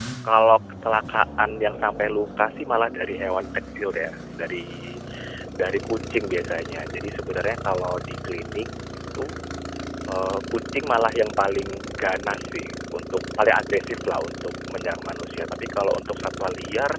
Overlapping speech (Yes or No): No